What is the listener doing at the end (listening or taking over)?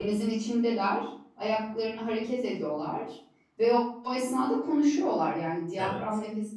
listening